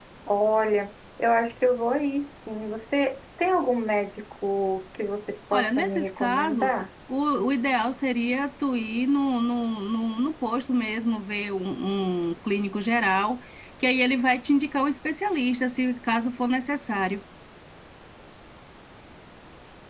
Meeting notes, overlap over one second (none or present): present